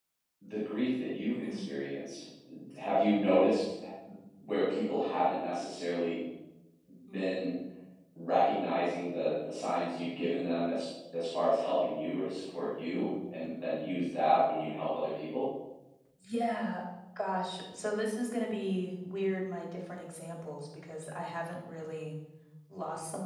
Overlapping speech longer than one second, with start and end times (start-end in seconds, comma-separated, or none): none